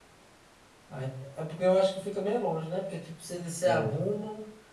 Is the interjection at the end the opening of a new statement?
No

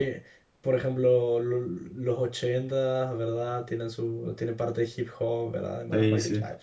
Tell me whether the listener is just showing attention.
Yes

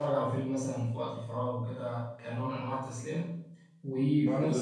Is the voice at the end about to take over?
Yes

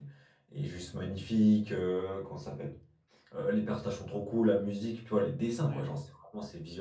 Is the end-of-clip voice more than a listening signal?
No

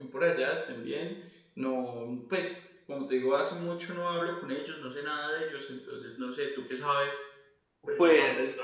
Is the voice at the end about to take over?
Yes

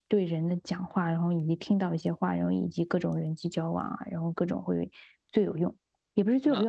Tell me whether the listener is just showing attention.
Yes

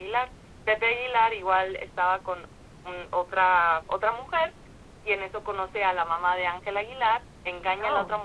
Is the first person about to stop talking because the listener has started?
No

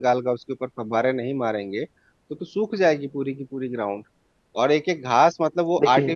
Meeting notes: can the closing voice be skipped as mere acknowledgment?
Yes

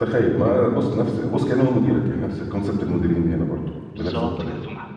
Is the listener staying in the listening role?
No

